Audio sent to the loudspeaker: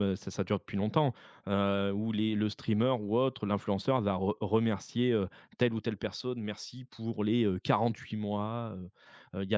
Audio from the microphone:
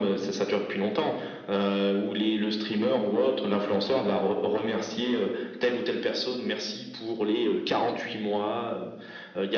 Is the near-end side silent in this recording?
Yes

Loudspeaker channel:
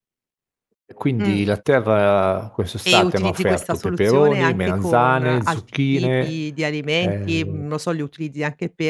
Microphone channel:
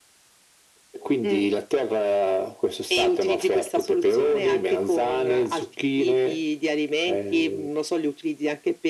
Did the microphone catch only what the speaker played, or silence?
Yes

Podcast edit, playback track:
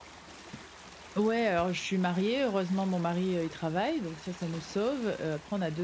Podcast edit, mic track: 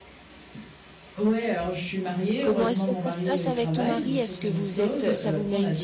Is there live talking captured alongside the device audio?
Yes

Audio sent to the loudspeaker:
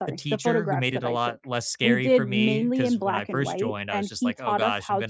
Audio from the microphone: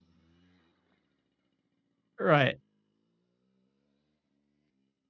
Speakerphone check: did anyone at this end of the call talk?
Yes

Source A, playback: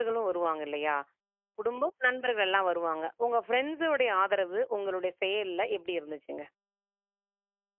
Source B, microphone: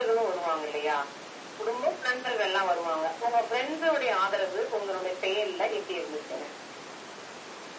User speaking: No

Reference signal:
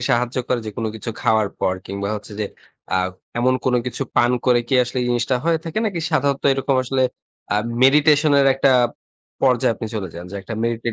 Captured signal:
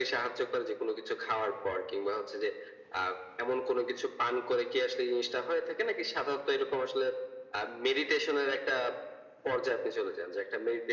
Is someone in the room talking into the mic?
No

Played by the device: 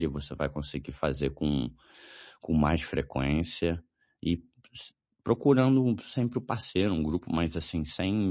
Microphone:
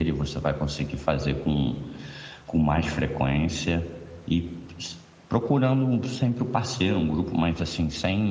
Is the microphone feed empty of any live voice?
Yes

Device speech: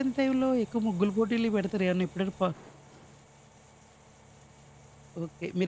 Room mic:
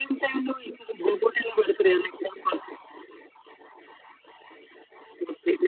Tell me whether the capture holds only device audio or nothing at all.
Yes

